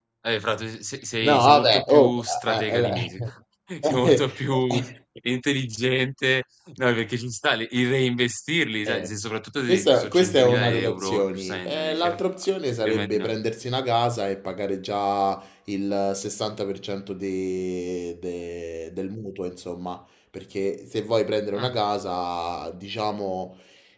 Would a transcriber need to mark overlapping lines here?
Yes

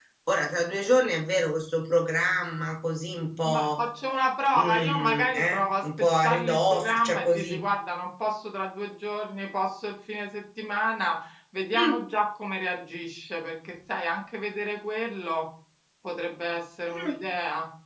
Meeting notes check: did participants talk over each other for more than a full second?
Yes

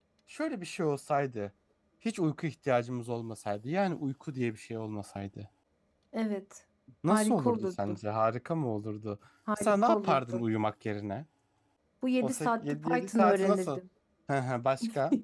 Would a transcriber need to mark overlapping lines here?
Yes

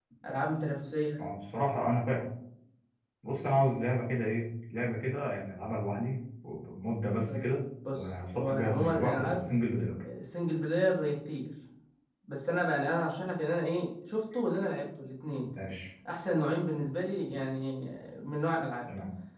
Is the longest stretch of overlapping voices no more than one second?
No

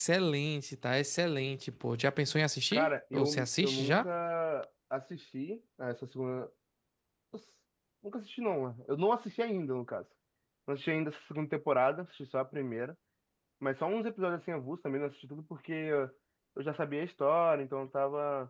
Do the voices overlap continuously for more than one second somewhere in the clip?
Yes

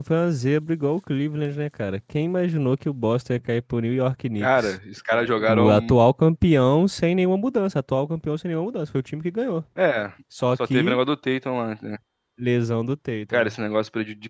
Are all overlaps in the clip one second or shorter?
Yes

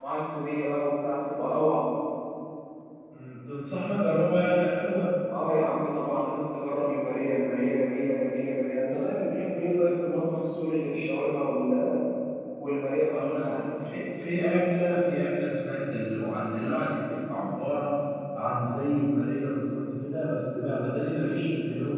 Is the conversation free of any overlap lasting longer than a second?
Yes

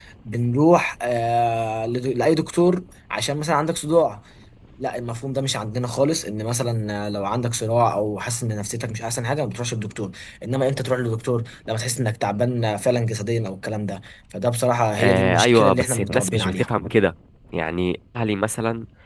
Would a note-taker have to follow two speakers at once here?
Yes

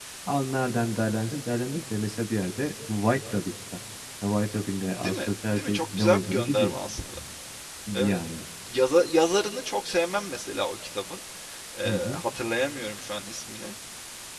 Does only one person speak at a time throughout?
No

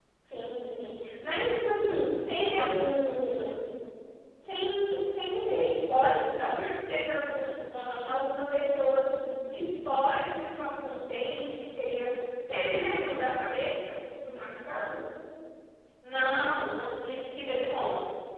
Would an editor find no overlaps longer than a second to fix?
Yes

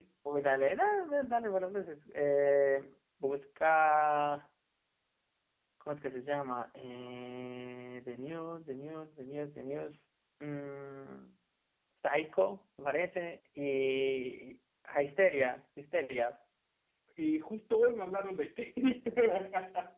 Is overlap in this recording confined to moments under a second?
Yes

